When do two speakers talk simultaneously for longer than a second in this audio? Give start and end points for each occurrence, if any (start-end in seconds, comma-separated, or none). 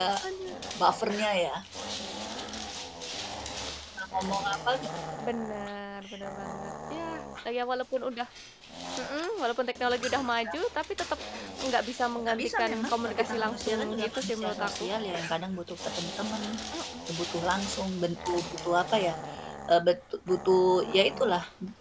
12.3-14.9